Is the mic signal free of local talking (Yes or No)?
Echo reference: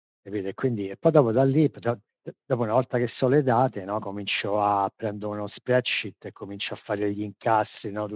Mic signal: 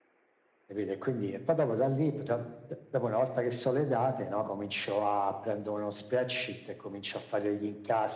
Yes